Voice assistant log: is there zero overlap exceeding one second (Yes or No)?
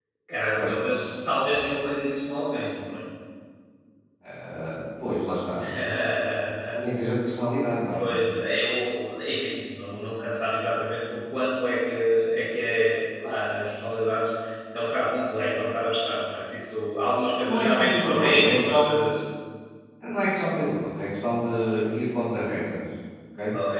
No